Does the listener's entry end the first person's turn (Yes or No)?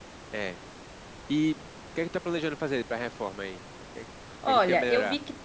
Yes